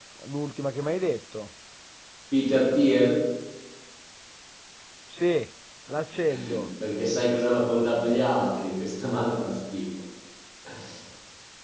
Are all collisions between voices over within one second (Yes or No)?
Yes